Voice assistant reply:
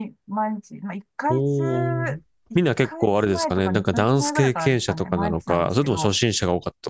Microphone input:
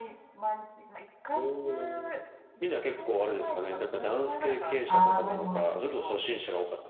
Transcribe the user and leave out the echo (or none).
ああ、なるほ